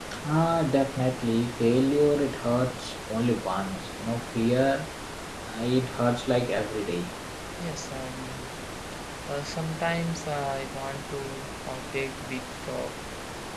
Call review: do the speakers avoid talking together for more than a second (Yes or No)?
Yes